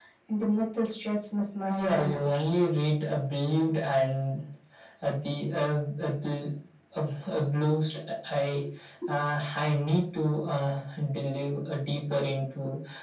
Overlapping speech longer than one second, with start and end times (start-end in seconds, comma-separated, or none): none